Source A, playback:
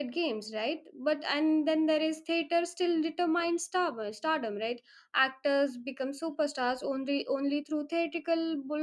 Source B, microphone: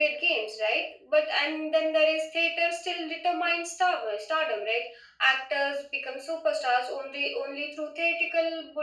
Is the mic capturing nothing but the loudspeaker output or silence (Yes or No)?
Yes